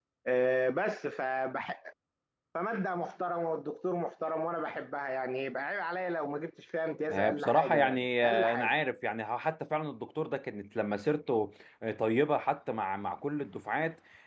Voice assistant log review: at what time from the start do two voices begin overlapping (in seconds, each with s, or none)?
7.1 s